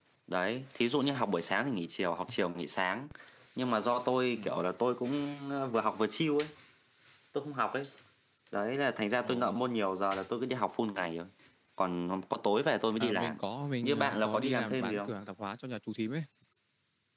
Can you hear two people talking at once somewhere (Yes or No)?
Yes